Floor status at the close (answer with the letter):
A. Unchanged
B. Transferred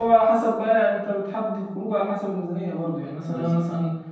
A